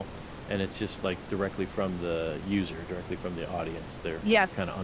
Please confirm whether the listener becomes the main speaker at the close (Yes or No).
Yes